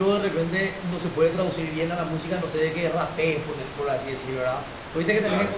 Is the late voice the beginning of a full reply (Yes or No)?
No